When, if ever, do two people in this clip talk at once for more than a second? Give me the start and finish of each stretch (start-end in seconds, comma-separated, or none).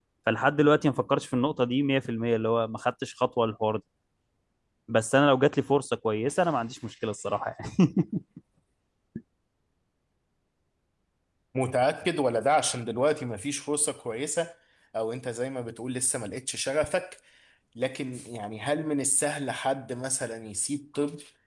none